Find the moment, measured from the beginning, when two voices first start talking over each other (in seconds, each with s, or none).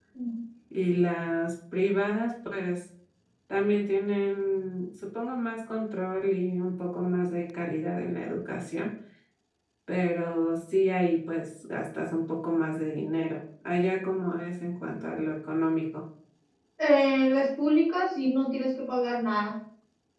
none